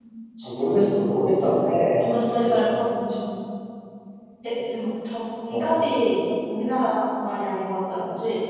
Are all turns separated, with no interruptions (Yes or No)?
No